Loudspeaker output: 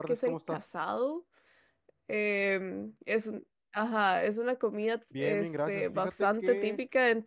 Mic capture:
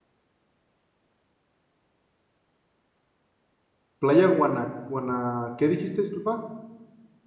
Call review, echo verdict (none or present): none